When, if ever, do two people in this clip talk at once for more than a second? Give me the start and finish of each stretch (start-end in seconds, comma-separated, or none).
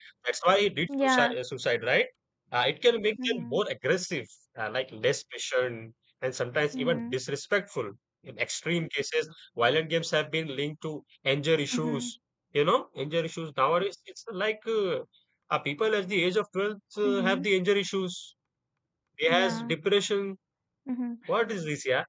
none